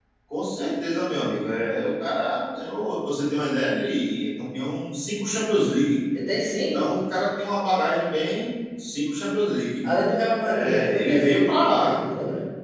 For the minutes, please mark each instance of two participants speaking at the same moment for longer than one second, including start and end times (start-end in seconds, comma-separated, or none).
10.4-12.0